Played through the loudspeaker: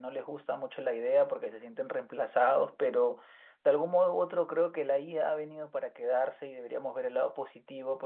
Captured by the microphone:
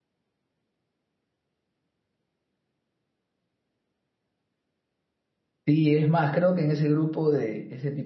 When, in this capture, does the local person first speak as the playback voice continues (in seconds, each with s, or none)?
5.7 s